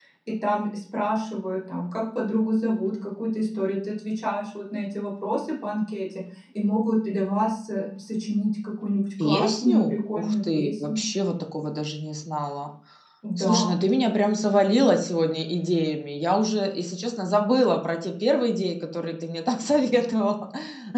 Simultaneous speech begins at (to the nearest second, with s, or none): 9 s